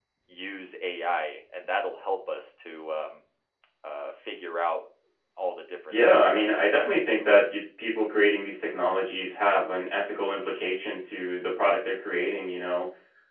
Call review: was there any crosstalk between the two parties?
Yes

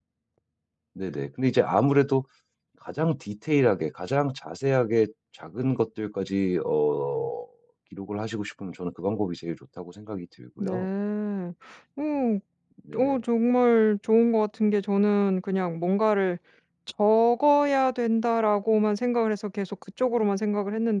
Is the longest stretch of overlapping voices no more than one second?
Yes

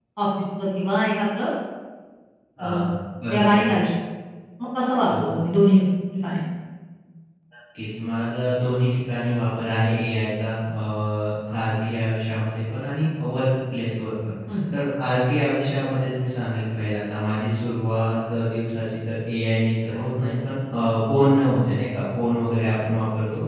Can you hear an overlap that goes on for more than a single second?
No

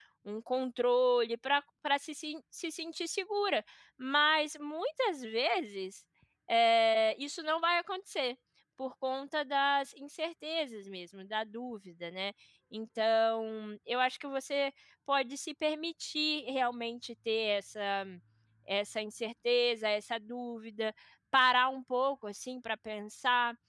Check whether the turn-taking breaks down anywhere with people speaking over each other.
No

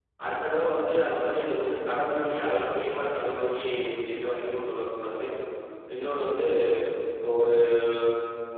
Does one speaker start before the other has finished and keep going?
No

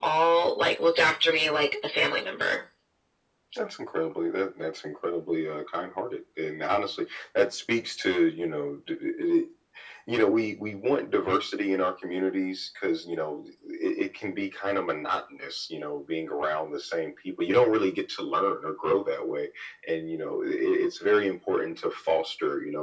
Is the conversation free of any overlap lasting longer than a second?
Yes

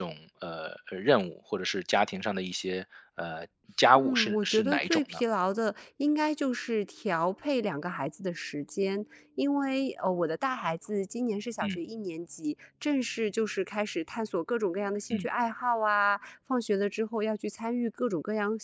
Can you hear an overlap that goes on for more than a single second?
Yes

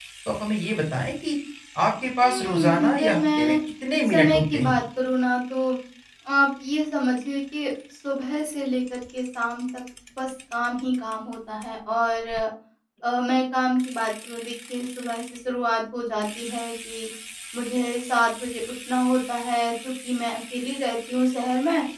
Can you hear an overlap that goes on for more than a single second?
Yes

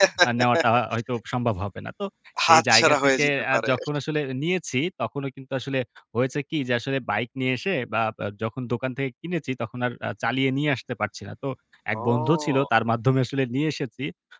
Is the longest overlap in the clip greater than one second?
Yes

